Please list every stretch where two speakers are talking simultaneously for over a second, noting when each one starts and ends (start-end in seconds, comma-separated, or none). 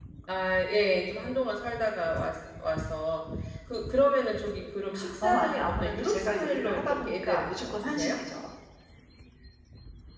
5.2-8.2